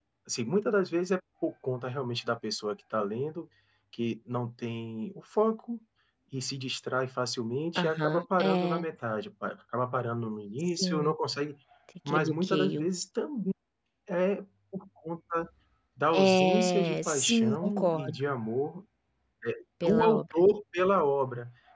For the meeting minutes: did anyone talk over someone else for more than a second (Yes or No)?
Yes